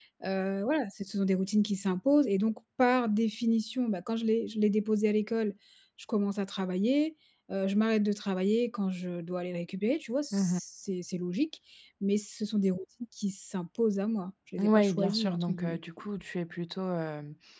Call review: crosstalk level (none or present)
present